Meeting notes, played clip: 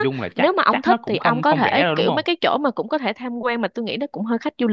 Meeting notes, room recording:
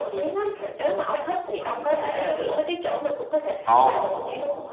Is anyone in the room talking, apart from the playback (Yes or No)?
Yes